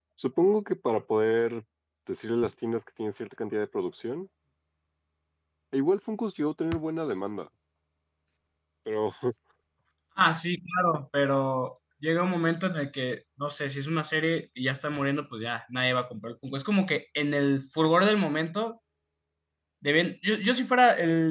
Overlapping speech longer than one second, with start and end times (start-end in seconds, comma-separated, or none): none